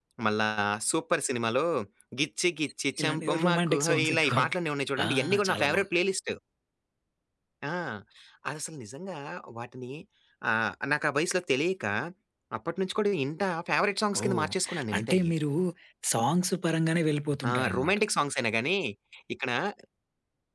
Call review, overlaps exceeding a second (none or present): present